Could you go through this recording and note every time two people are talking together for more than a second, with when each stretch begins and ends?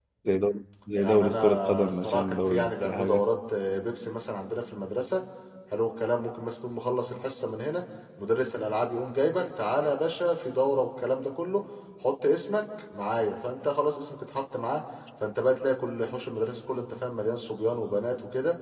1.0-3.2

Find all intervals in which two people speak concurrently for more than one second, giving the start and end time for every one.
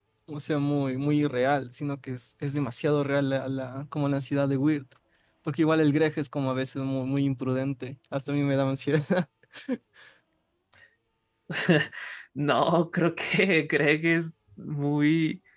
none

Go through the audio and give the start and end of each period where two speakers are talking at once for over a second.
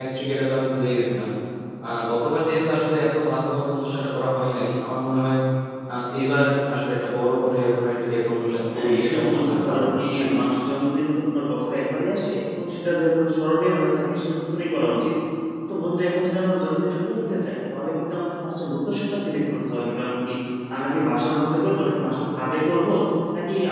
8.7-10.3

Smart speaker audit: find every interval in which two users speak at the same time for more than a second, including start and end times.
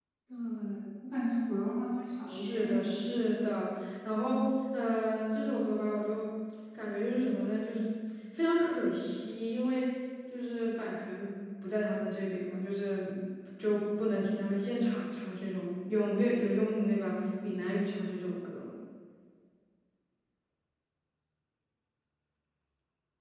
2.3-3.7

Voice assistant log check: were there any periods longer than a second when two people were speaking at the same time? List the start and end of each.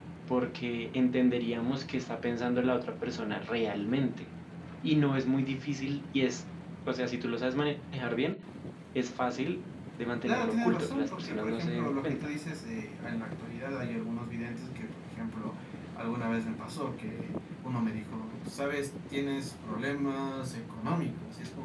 10.3-12.3

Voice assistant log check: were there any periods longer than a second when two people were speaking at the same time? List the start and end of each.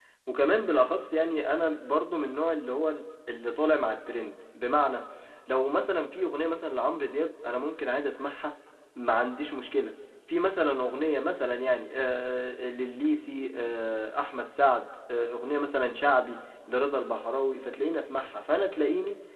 none

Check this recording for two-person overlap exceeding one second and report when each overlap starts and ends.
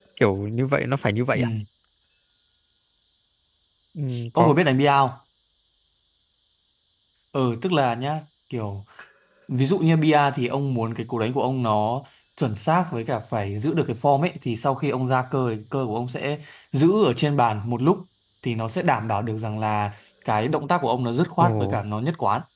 none

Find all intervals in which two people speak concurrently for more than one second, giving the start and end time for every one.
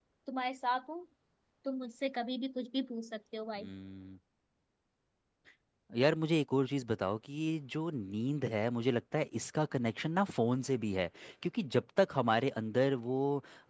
none

